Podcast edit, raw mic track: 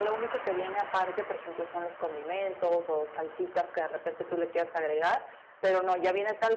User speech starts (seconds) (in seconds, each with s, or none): none